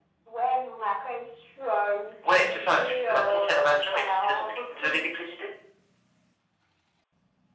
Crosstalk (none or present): present